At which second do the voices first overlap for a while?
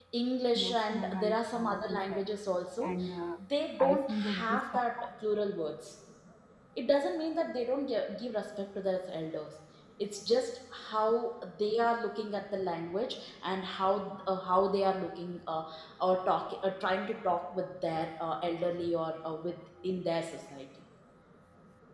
0.5 s

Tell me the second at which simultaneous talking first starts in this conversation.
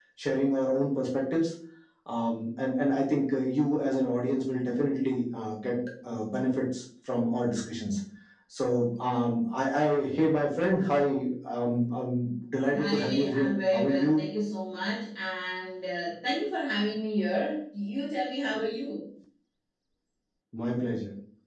12.7 s

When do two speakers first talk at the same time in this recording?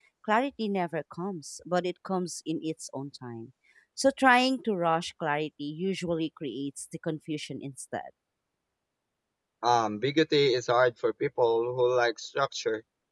none

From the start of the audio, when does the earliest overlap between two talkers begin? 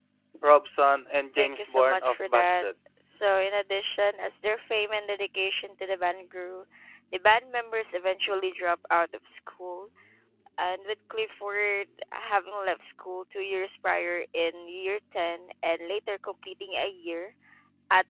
1.4 s

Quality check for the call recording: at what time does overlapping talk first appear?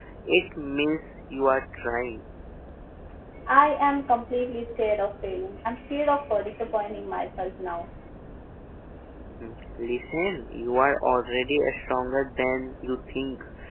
none

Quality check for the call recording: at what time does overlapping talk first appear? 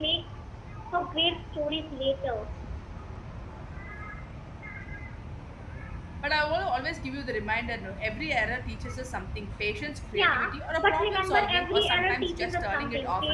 10.1 s

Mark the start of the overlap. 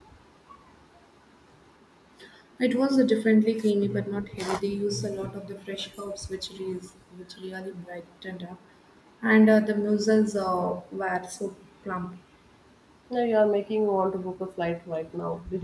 none

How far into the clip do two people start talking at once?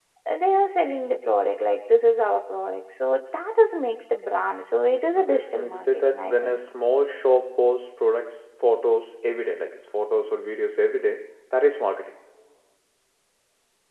5.2 s

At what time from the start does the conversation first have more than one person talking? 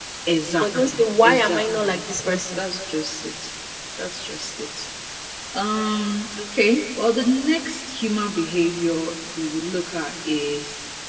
0.6 s

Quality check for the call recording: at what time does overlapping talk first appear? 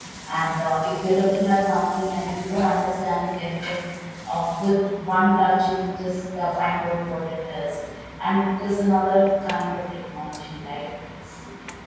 none

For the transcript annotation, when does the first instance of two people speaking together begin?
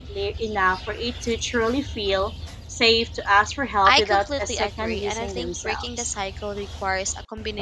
3.9 s

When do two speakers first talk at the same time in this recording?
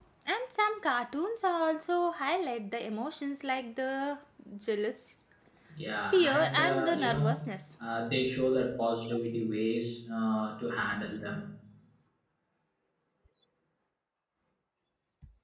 6.1 s

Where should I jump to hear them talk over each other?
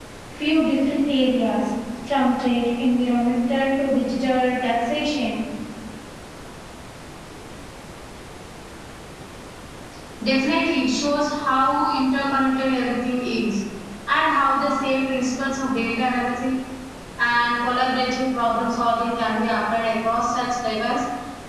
none

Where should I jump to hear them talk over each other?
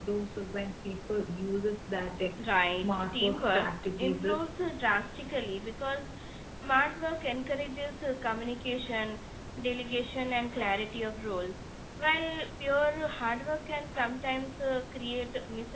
2.4 s

